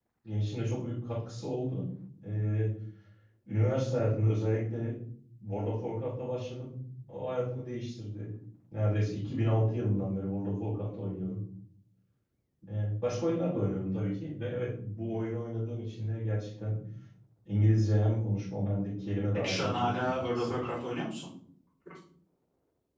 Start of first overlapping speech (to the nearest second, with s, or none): 19 s